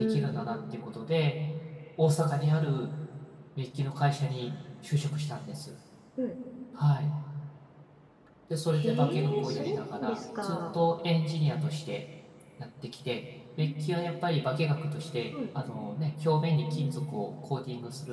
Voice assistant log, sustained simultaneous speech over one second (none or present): present